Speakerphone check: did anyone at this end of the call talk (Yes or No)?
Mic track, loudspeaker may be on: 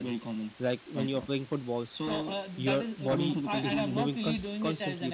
Yes